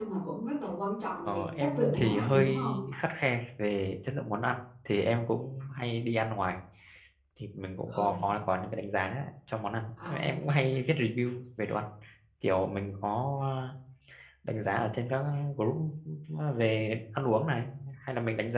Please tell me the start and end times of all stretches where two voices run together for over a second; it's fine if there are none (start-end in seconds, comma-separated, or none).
1.2-2.6